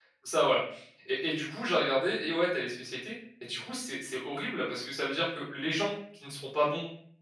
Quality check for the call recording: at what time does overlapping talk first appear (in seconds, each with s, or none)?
none